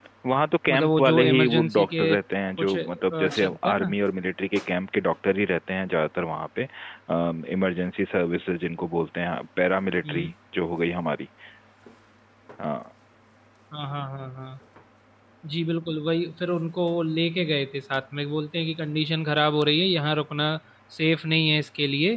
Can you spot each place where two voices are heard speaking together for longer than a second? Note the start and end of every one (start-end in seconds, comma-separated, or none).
0.7-2.1, 2.6-4.0